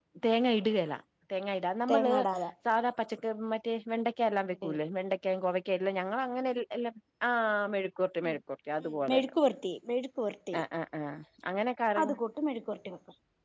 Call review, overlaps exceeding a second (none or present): none